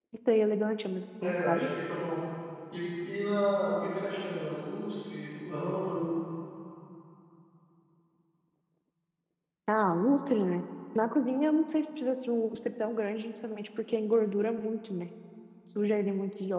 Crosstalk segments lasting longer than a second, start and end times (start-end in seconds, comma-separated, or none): none